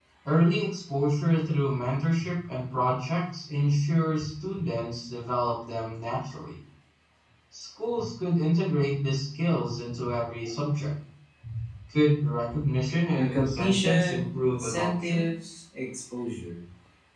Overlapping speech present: Yes, from 13.2 s

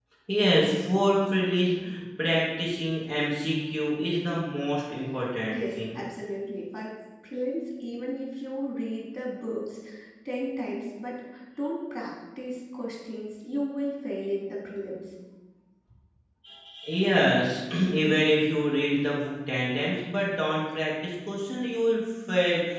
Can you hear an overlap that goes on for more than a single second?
No

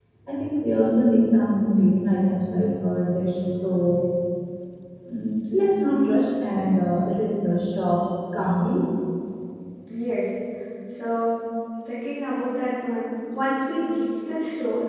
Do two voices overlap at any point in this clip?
No

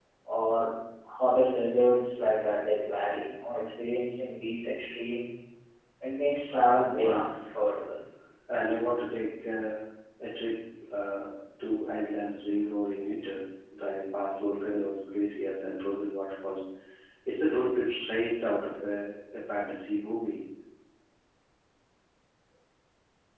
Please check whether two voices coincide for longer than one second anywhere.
No

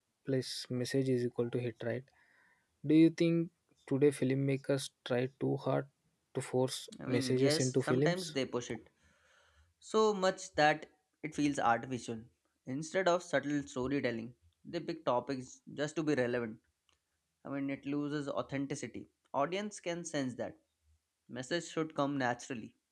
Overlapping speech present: Yes, from 7.1 s

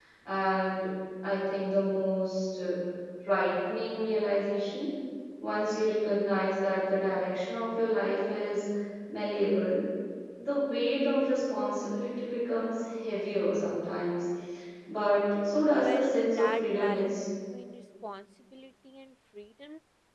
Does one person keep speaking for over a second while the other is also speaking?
Yes, from 15.8 s

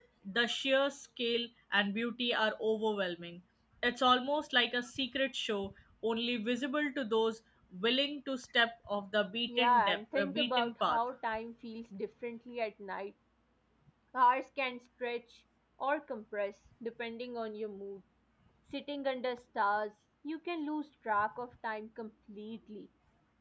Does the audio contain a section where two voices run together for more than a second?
Yes, from 9.5 s

